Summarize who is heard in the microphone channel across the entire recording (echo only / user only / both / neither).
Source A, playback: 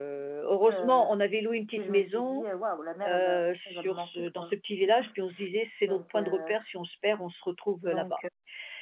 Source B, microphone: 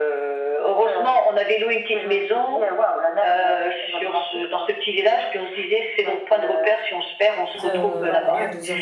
both